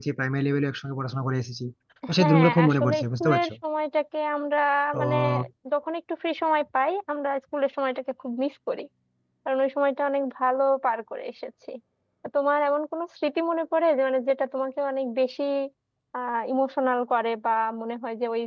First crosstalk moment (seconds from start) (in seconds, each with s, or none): 2.2 s